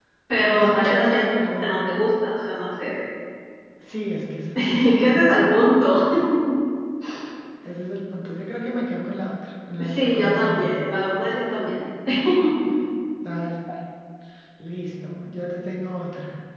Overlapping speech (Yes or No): Yes